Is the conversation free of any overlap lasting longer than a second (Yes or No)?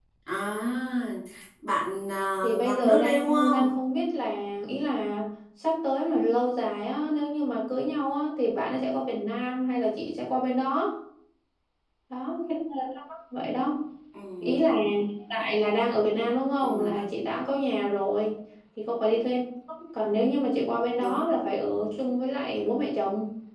No